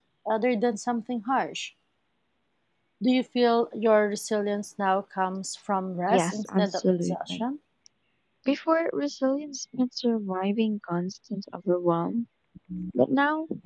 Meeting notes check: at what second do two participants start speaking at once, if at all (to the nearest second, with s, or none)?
6 s